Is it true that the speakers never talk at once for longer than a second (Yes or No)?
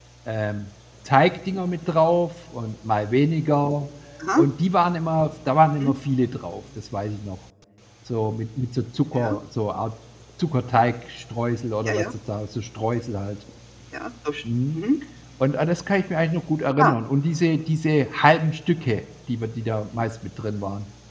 Yes